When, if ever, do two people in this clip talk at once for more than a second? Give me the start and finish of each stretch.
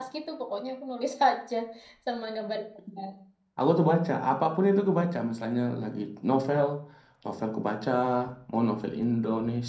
none

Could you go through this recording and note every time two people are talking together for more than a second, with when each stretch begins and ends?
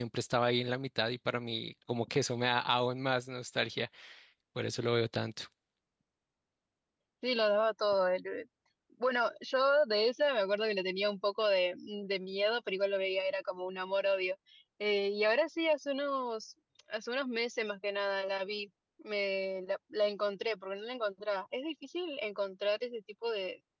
none

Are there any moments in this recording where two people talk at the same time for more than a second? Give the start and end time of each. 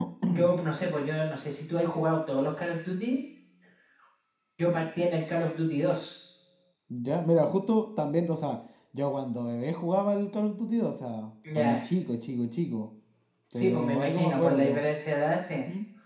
13.5-14.8

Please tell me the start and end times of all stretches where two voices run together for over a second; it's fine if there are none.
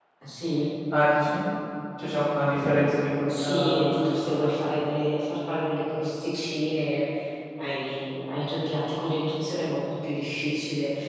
3.3-4.7

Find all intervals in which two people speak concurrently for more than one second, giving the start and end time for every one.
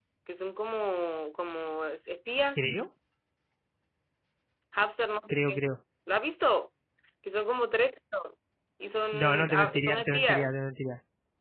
9.1-10.6

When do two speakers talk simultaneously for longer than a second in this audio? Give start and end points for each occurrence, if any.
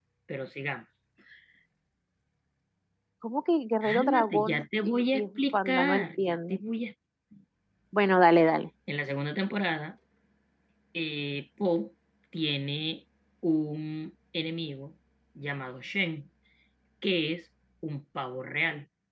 3.8-6.6

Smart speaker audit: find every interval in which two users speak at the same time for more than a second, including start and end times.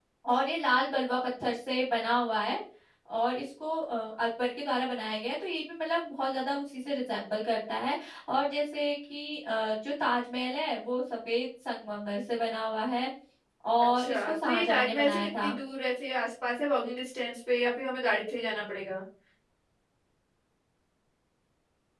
13.8-15.5

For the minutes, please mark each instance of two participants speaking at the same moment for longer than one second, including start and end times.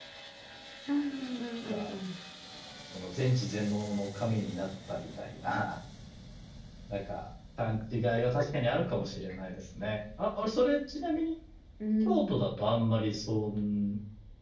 none

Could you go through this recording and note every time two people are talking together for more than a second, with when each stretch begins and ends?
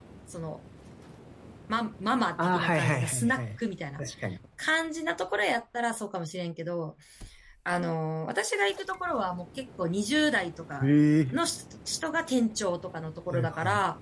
2.4-3.6

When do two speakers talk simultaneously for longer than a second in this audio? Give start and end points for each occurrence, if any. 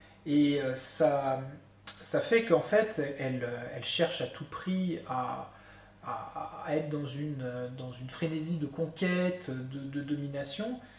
none

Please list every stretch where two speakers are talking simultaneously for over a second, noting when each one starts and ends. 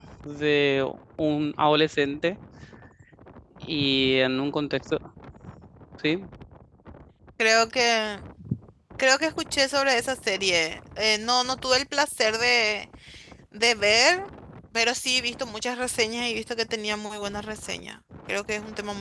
none

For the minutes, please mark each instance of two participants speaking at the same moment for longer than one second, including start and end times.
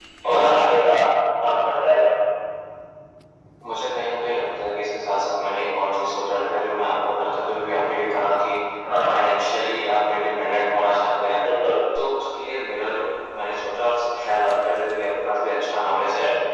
none

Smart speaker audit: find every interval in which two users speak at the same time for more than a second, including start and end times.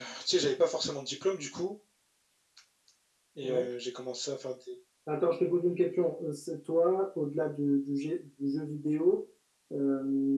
none

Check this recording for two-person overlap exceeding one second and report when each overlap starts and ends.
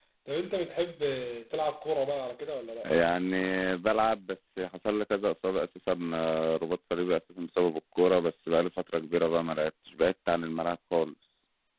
none

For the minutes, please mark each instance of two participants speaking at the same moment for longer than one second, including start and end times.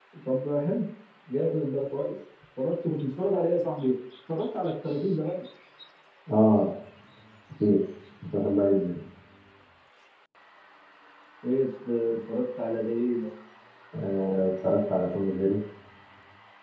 none

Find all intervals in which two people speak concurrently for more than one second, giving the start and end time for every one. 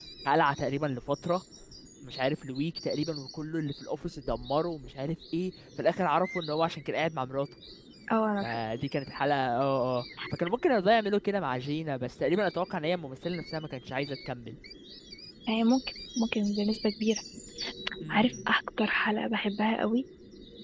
none

